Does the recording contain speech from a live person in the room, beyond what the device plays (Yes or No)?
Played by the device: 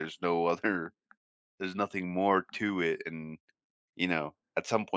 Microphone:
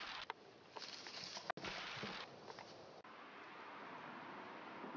No